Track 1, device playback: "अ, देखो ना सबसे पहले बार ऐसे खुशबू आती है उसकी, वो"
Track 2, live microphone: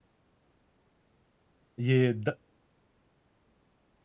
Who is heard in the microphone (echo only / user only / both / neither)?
user only